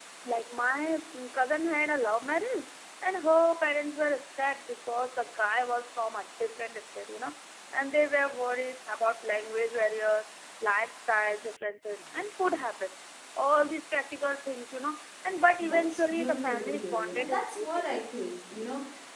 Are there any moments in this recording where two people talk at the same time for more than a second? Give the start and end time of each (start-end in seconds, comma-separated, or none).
15.6-18.0